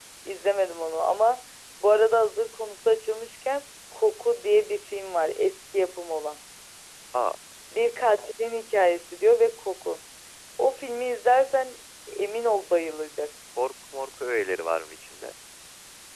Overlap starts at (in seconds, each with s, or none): none